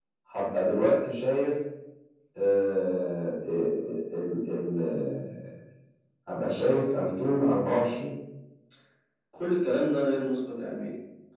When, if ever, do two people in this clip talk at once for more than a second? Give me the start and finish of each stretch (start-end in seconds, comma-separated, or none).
none